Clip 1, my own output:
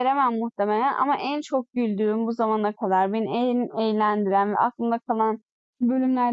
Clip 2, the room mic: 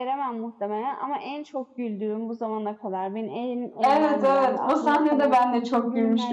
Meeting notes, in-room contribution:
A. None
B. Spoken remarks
B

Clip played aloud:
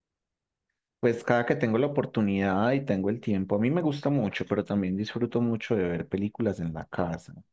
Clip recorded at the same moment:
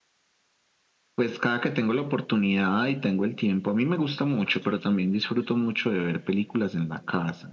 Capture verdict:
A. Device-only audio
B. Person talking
A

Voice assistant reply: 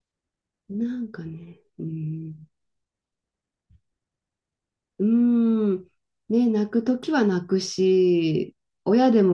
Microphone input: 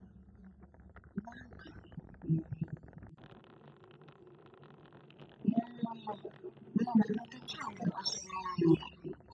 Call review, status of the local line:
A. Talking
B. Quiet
B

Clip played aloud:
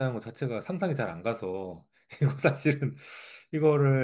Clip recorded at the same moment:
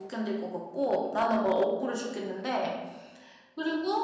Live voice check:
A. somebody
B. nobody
A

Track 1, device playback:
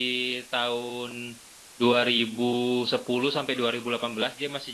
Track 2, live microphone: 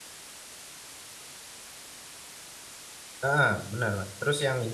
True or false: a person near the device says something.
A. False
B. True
B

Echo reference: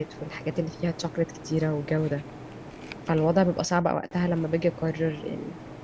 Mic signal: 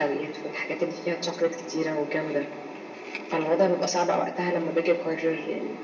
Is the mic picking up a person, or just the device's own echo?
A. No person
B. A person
A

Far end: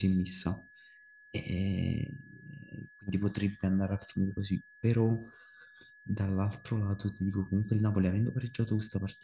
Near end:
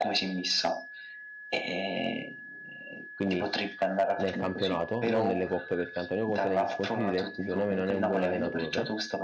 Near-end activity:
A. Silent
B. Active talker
B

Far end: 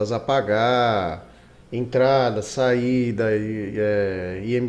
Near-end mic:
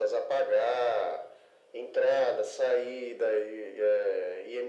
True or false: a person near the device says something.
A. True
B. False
B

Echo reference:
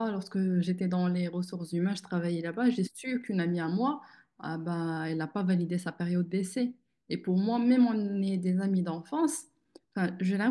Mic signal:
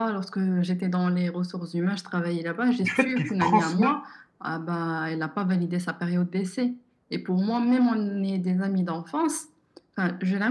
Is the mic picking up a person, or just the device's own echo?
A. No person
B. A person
B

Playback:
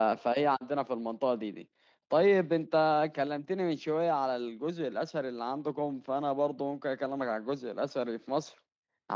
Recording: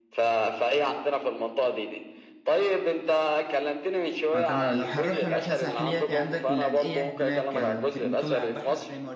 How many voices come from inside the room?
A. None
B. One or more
B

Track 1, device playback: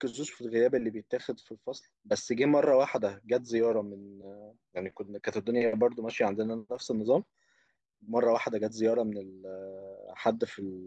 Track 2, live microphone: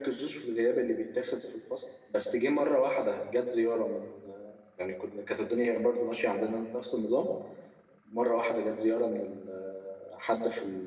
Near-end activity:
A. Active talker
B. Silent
B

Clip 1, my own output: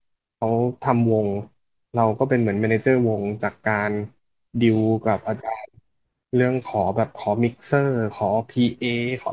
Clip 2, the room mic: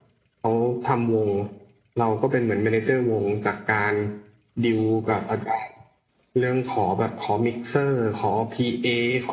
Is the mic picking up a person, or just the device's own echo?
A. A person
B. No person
B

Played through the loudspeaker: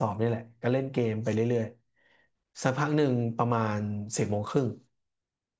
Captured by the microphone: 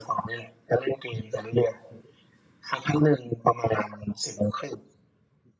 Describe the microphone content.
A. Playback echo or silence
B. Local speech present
A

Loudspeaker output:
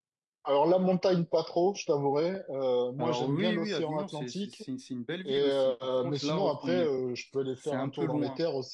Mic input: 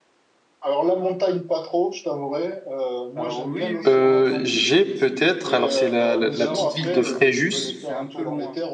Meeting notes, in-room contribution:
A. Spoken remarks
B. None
A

